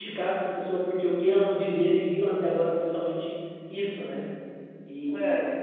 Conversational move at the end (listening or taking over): listening